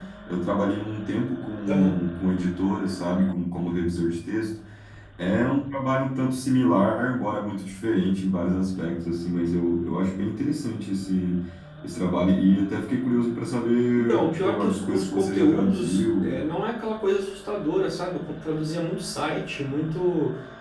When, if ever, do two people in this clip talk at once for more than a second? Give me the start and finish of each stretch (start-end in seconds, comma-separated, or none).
14.0-16.4